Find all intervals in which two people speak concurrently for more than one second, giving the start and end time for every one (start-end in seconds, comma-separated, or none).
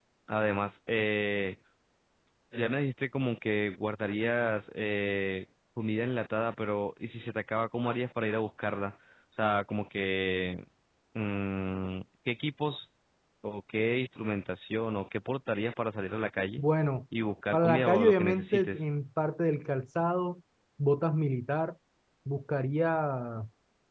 17.5-18.8